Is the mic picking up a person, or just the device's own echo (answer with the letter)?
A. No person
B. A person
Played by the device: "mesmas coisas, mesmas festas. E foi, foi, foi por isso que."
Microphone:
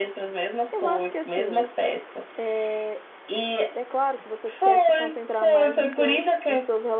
B